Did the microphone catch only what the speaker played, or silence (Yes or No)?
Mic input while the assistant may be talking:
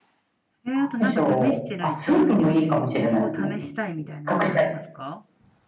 No